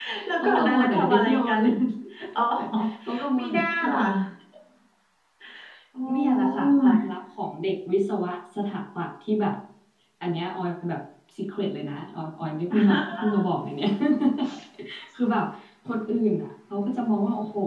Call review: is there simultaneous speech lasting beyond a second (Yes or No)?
Yes